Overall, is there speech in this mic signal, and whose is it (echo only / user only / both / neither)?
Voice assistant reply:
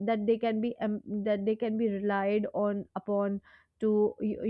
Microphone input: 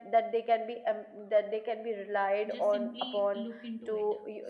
both